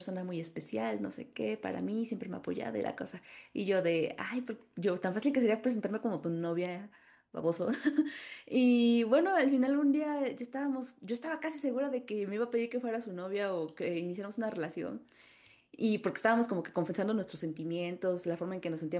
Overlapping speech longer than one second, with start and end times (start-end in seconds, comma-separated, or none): none